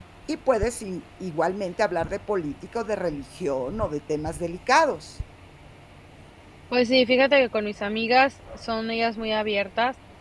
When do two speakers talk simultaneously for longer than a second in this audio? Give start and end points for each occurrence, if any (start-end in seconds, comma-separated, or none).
none